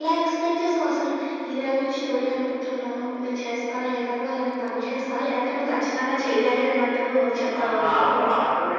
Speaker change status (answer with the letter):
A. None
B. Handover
B